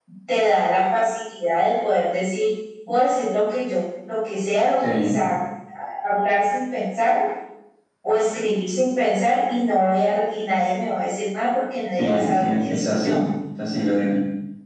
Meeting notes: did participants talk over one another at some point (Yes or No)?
Yes